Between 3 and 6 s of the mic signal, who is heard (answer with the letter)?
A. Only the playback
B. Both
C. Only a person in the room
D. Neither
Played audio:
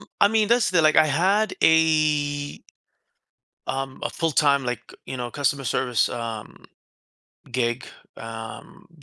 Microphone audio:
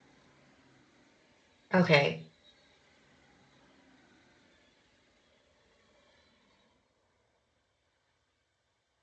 D